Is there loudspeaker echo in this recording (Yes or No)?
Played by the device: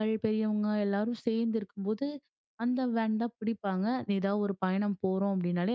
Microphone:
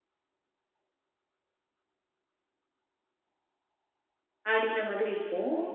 No